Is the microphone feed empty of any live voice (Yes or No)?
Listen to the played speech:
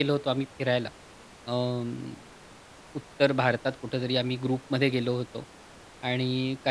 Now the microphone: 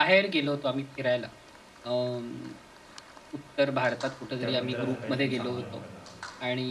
No